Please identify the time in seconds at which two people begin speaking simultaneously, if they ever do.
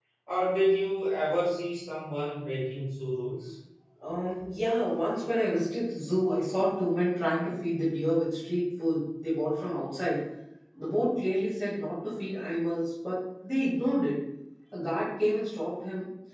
none

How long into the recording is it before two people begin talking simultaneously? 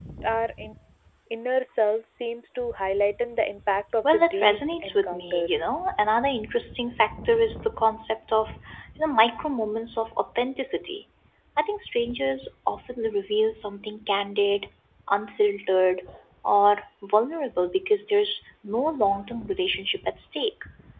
4.0 s

